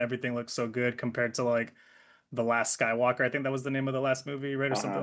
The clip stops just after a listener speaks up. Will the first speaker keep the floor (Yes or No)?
No